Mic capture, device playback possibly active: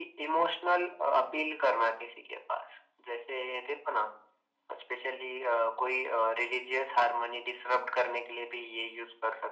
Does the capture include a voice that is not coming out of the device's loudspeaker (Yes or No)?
No